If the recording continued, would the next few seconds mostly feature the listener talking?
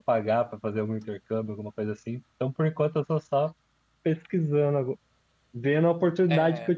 No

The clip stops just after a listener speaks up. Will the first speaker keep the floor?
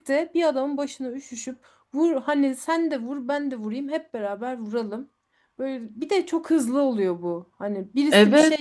Yes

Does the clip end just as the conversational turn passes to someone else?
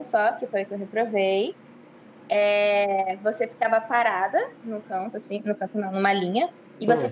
No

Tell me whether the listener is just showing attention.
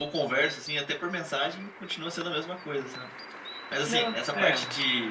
Yes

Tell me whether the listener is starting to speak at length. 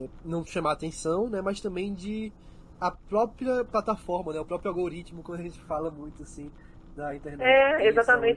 Yes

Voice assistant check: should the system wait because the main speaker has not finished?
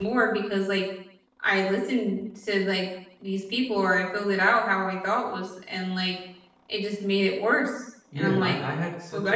No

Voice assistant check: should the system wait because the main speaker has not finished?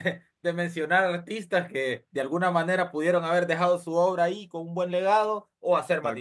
Yes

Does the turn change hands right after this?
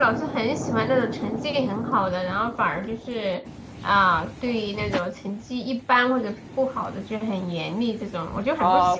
Yes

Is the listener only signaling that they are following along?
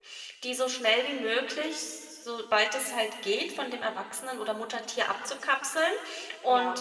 Yes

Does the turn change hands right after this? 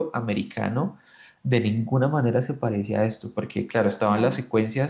No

